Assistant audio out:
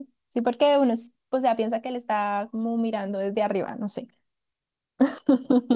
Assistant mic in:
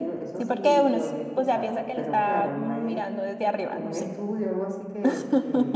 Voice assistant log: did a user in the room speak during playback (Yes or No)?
Yes